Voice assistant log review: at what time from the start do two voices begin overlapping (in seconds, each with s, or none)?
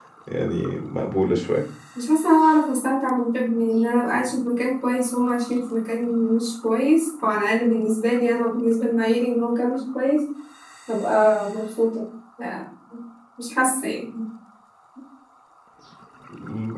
none